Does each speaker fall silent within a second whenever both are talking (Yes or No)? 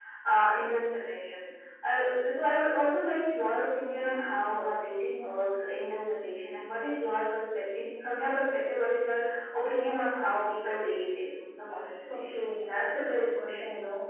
Yes